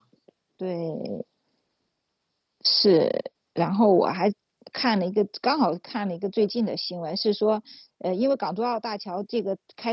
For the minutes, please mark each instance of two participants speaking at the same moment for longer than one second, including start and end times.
none

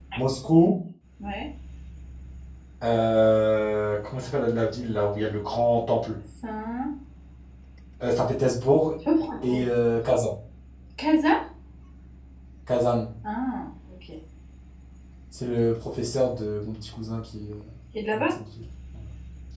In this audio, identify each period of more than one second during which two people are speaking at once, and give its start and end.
none

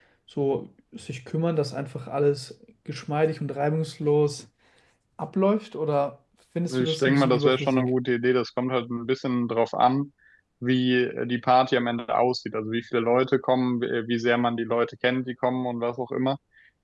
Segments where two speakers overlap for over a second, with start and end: 6.7-8.0

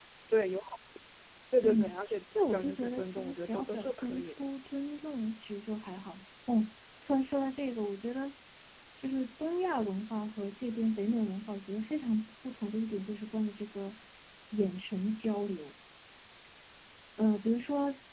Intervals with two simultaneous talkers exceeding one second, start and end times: 2.5-4.5

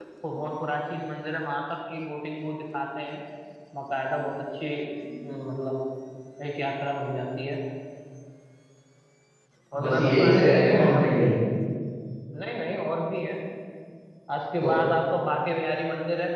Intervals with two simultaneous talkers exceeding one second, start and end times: 9.8-11.2

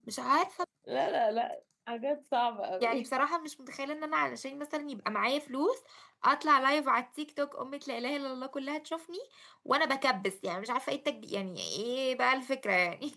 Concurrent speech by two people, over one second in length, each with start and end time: none

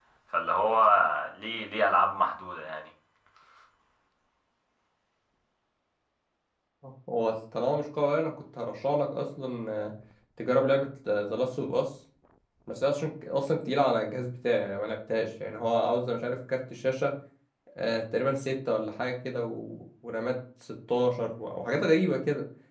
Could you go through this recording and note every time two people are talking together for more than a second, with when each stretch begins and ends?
none

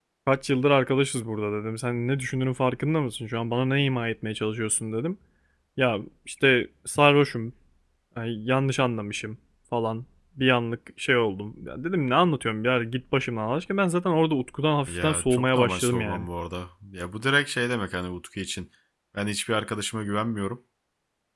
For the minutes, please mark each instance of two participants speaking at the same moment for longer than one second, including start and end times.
14.9-16.3

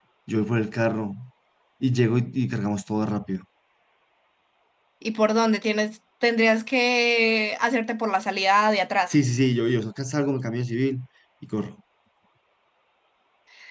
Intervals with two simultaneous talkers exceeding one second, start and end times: none

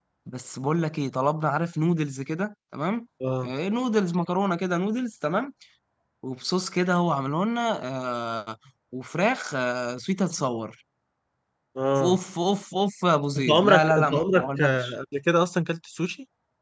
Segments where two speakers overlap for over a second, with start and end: 13.4-14.9

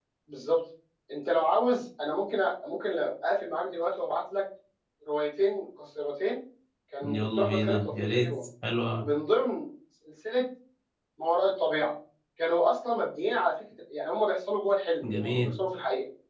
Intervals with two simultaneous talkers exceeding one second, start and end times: 7.0-8.3

